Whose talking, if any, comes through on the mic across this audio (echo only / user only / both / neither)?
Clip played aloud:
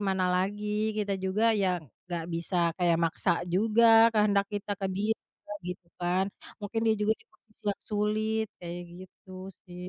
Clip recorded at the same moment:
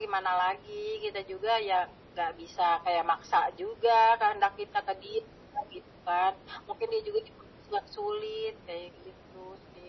echo only